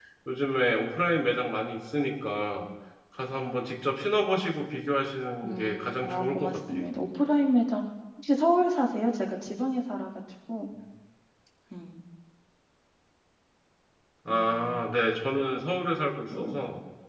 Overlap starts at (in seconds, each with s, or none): 5.4 s